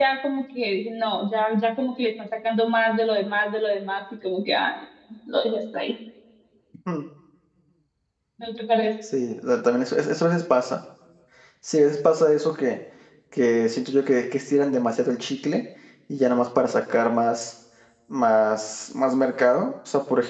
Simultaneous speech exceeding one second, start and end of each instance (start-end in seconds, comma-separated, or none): none